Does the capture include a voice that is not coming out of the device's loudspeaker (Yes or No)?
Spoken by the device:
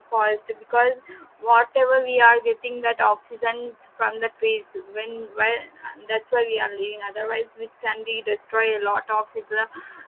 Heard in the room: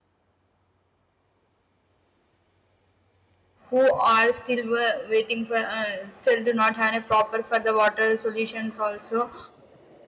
Yes